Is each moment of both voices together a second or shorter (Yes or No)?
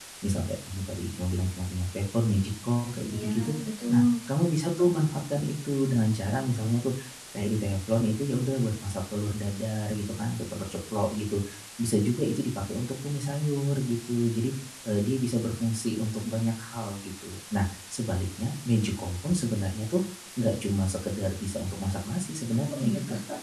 Yes